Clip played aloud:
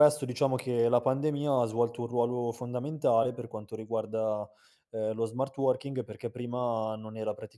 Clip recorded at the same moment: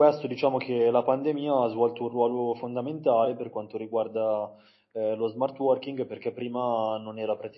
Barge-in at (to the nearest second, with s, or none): none